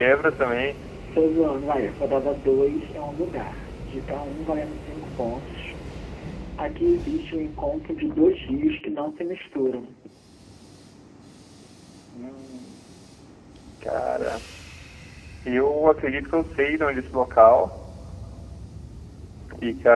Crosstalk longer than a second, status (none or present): none